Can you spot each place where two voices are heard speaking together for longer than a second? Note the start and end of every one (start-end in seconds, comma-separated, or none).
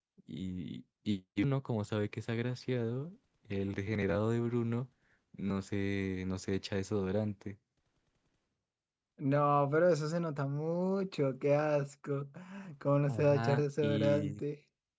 13.1-14.4